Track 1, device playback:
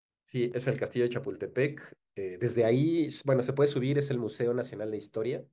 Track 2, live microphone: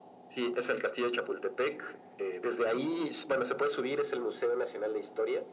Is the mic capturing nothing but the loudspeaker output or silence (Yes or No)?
Yes